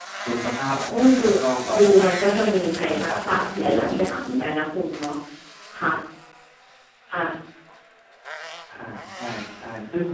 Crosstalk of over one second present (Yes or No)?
Yes